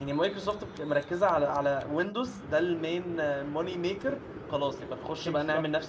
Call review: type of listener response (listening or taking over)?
listening